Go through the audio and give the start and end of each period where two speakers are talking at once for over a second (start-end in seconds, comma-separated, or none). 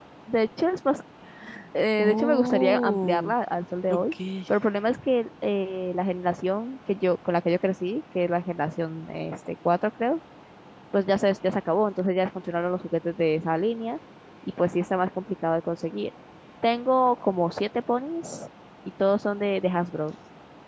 2.0-3.3